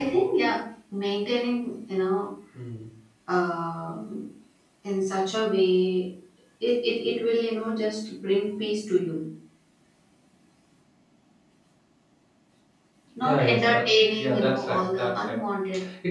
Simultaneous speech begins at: 13 s

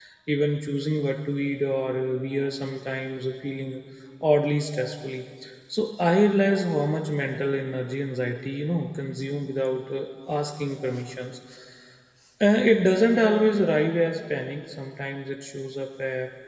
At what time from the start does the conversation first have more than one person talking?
none

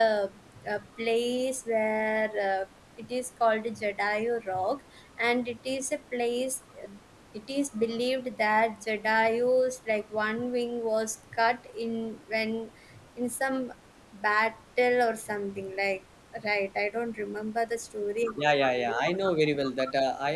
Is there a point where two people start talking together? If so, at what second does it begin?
none

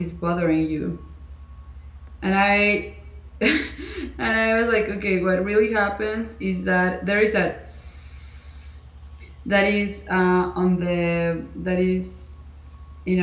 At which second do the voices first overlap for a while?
none

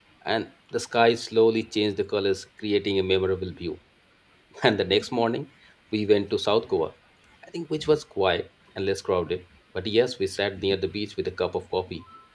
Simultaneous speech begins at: none

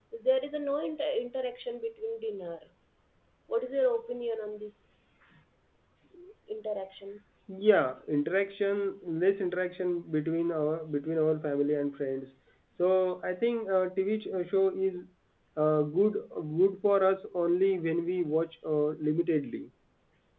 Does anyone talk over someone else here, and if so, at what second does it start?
none

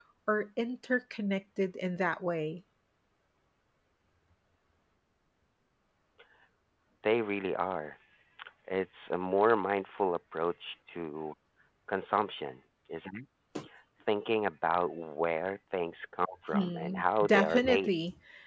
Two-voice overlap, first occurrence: 17 s

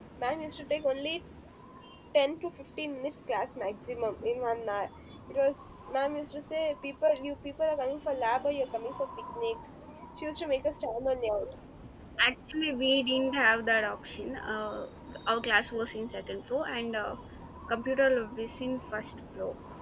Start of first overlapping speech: none

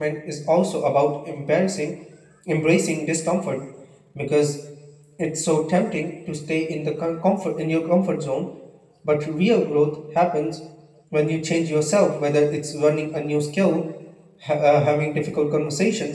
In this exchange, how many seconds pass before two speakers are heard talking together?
none

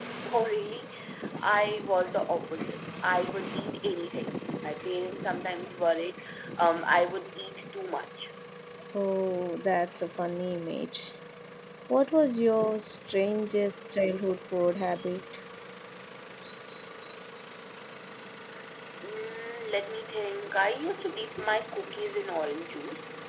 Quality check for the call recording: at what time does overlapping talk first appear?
none

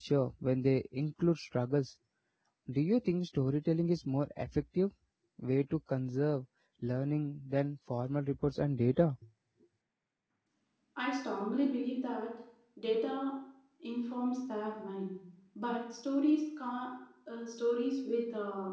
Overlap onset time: none

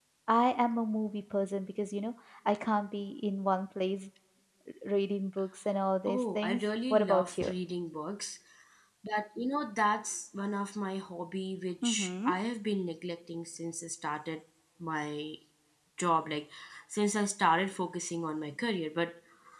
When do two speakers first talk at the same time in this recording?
6 s

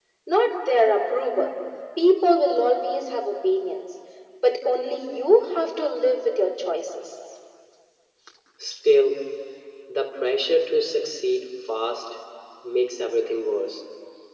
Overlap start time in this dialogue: none

